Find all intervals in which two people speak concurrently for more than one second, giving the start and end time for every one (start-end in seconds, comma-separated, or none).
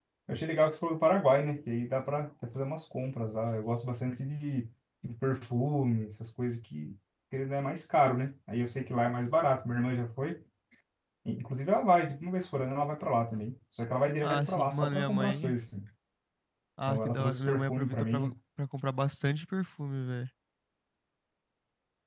14.2-15.6, 16.9-18.2